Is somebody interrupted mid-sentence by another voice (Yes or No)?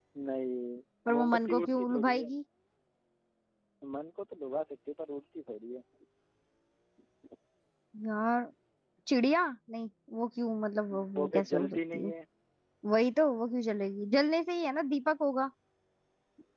Yes